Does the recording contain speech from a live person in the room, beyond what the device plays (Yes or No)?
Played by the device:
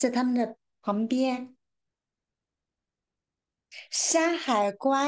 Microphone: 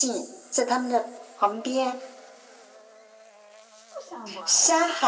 Yes